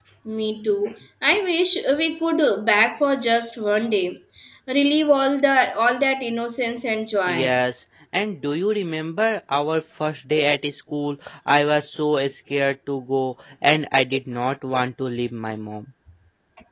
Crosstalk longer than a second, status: none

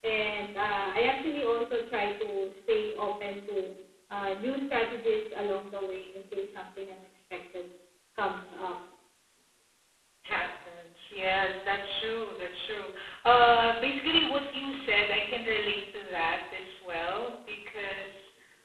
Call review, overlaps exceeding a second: none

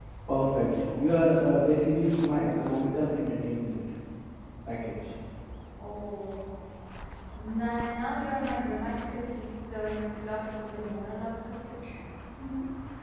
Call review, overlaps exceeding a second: none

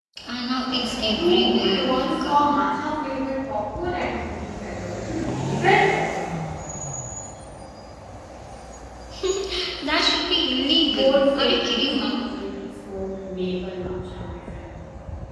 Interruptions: present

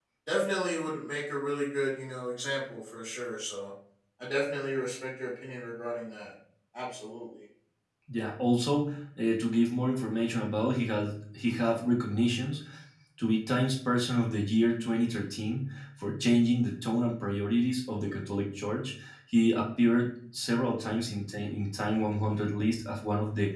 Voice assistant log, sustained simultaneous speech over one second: none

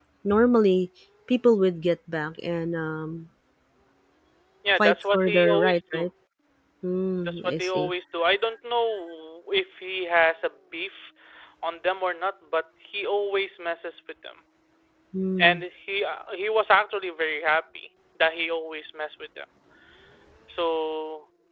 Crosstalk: present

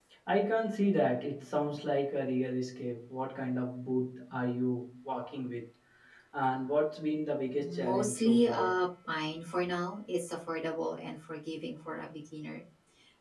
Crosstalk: present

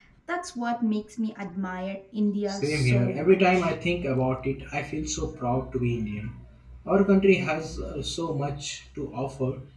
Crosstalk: present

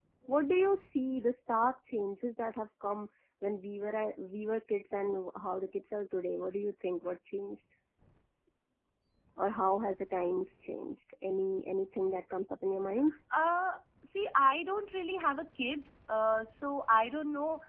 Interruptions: none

